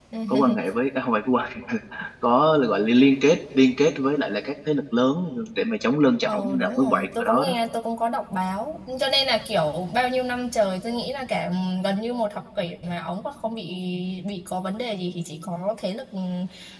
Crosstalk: present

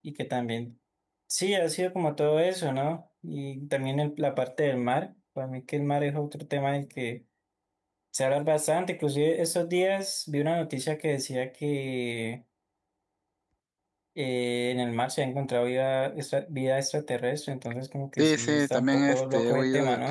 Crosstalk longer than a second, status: present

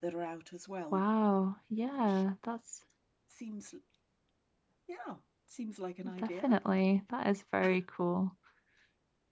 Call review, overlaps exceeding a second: none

